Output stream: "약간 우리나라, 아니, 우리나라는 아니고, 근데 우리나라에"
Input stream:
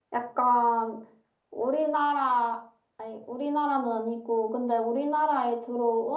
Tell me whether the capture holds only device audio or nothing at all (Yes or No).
Yes